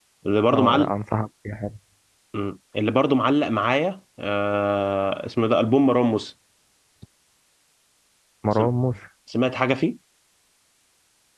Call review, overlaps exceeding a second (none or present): none